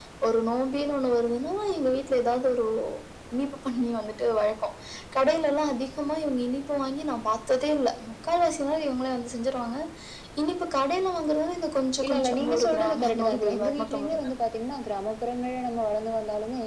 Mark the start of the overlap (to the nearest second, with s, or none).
12 s